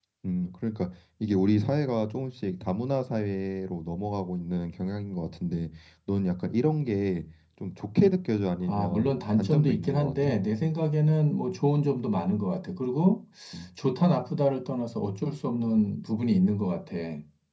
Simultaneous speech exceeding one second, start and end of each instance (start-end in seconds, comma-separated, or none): 8.7-10.3